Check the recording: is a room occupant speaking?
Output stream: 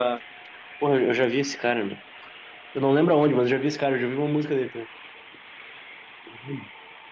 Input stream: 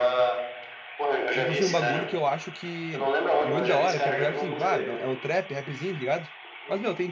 Yes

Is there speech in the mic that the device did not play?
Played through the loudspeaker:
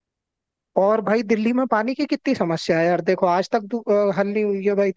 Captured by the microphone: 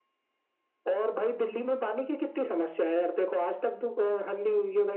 No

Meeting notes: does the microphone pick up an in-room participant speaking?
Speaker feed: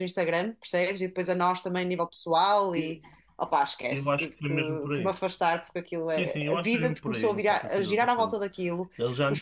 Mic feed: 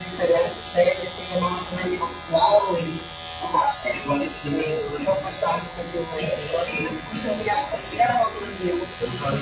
No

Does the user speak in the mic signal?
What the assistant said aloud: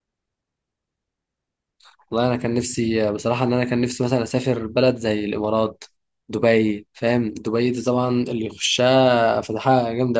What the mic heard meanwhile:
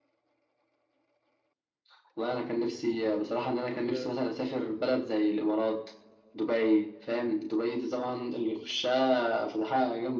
Yes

